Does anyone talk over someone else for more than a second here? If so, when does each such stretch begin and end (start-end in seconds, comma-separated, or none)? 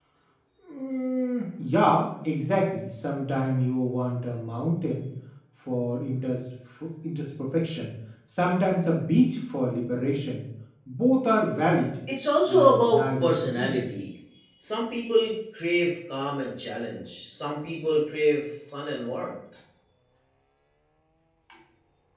12.5-13.8